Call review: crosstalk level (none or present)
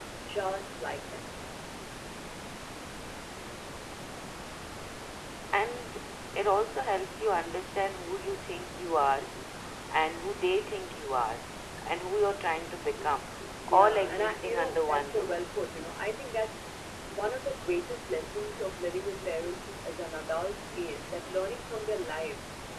present